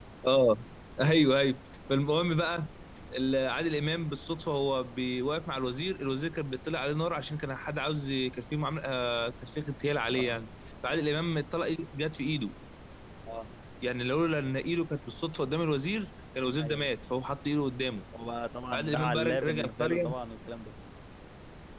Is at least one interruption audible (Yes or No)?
Yes